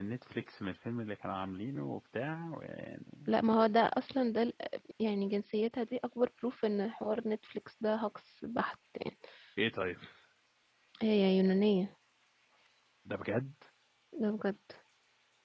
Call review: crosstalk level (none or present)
none